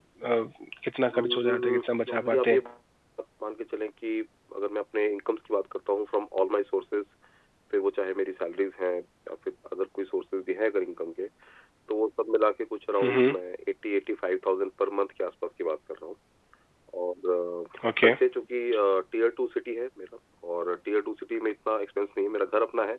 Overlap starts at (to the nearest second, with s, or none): 1 s